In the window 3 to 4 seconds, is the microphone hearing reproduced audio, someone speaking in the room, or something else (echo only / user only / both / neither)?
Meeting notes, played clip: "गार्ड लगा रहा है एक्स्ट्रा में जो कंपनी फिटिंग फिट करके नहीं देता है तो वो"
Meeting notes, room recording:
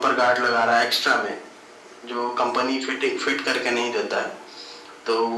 echo only